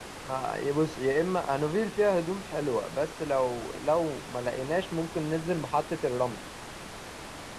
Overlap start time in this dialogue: none

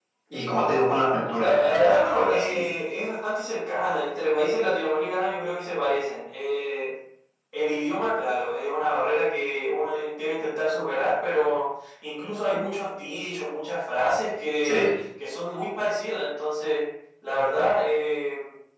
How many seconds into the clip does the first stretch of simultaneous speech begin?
1.1 s

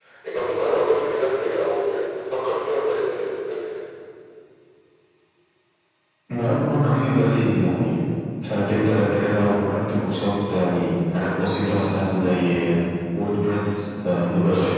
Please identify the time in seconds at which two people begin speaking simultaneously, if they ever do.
none

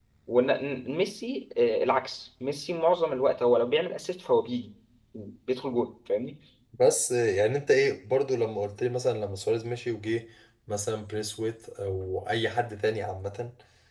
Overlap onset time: none

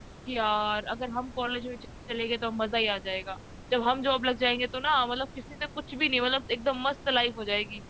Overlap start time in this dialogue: none

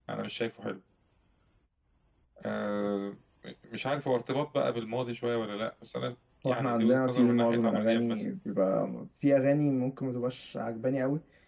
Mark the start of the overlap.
6.4 s

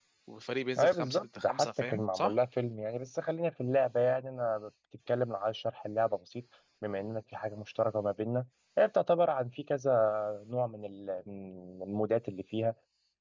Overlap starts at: 0.8 s

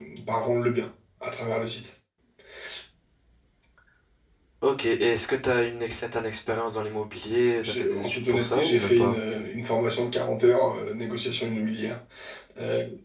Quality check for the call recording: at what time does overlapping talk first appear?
7.6 s

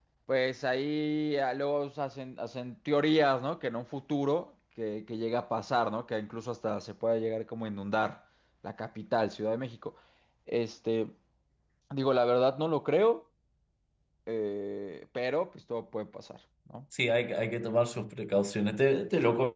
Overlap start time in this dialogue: none

